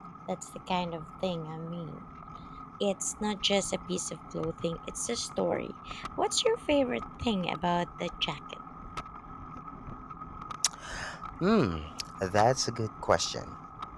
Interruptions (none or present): none